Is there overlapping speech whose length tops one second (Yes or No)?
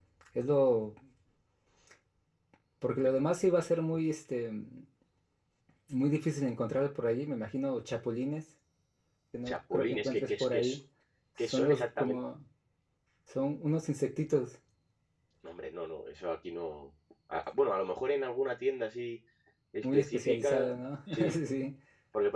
Yes